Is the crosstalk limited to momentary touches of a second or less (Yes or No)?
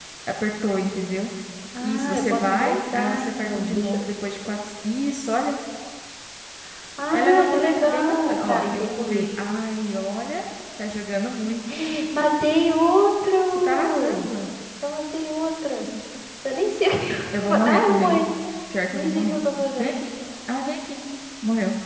No